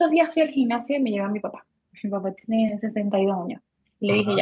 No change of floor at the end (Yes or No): Yes